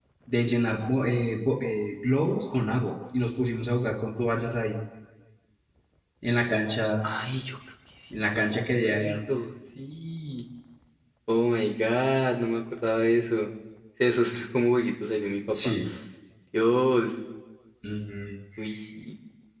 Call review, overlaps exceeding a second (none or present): none